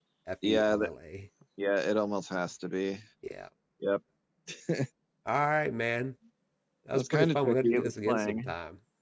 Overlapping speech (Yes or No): Yes